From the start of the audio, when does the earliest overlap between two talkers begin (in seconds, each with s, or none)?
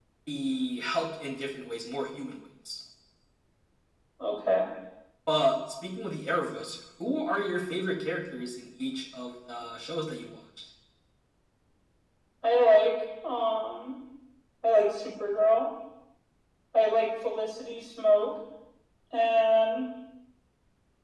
none